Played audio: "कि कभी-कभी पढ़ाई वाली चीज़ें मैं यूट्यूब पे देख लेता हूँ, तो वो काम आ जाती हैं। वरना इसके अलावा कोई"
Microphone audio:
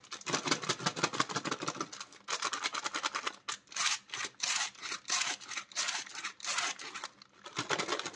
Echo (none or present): none